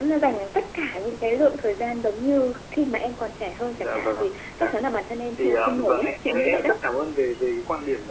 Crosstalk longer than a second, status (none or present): present